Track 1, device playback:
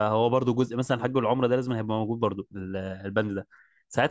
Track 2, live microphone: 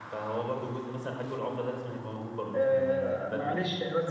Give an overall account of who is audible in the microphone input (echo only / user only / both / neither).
both